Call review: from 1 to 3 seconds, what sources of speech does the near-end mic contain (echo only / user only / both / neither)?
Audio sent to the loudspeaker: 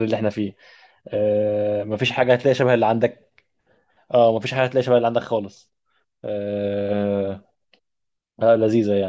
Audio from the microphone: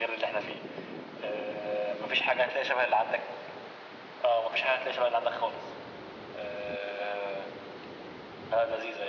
echo only